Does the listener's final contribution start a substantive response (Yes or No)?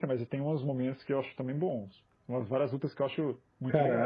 Yes